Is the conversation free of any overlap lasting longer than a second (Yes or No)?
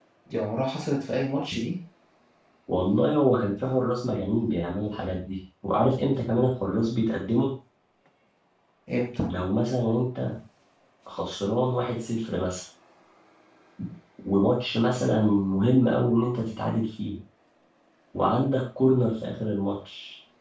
Yes